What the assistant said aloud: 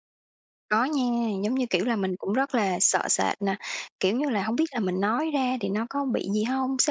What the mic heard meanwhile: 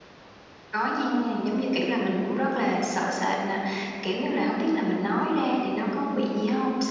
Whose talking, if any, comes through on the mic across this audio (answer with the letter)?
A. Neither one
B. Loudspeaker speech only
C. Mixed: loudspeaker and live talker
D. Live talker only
B